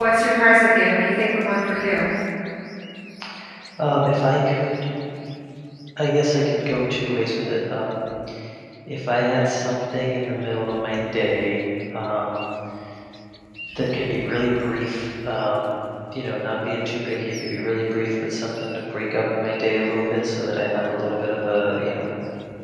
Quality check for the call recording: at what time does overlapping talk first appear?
none

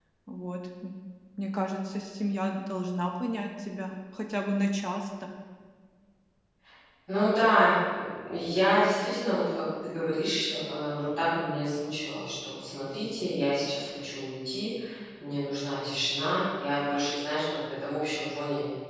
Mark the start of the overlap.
none

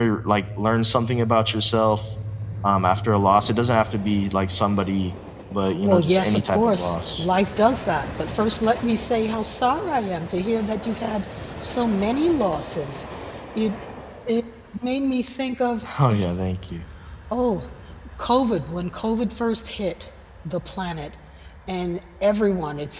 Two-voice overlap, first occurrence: 5.6 s

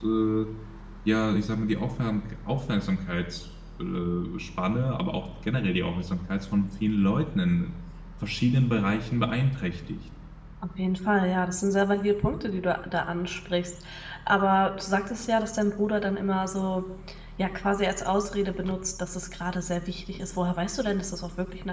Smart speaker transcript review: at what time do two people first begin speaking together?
none

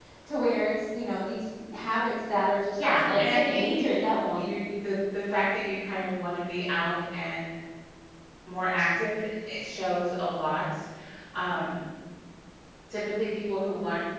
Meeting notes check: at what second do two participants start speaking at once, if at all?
3.0 s

